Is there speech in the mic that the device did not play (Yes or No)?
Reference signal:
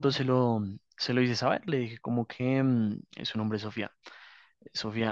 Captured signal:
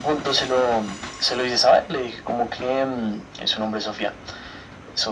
No